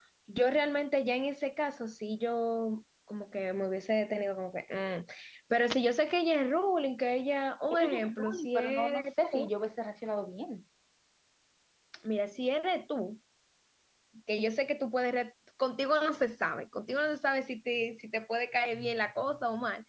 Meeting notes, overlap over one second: present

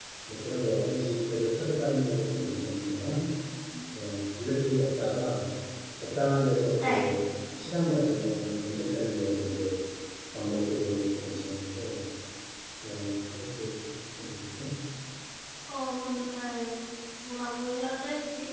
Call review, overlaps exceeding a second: none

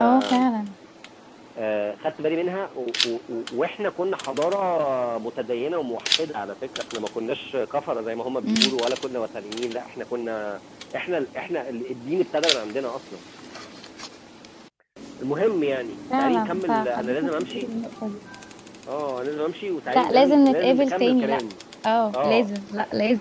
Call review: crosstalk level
present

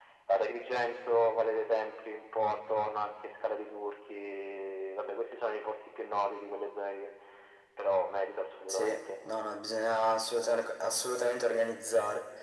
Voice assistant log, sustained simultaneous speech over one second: none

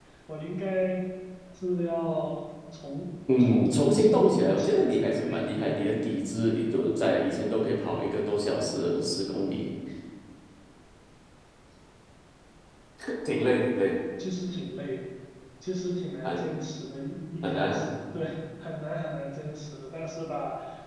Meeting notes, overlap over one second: present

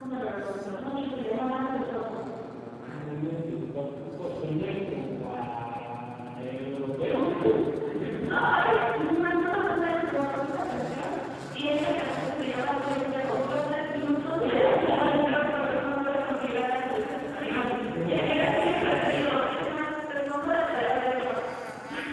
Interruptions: present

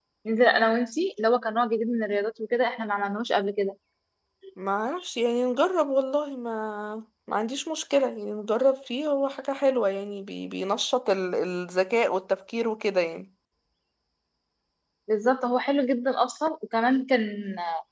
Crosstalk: none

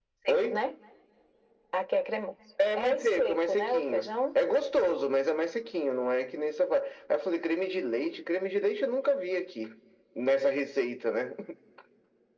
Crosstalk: present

